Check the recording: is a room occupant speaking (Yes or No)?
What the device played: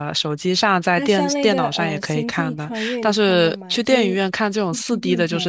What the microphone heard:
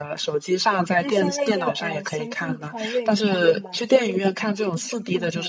No